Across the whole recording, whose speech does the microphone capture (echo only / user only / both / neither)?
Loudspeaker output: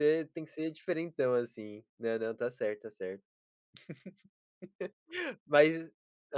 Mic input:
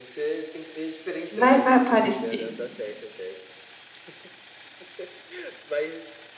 both